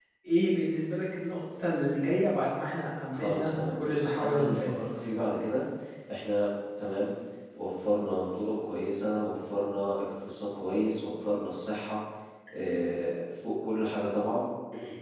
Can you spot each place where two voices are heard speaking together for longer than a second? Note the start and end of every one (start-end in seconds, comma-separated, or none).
3.1-5.0